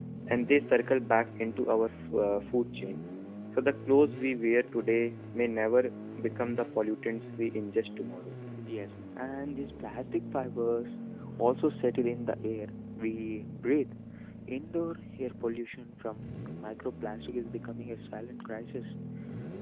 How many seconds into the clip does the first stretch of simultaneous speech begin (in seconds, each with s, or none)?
none